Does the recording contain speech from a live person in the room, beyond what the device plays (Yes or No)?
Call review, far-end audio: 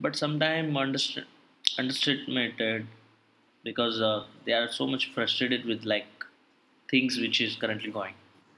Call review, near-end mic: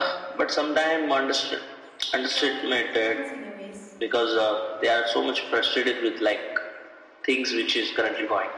Yes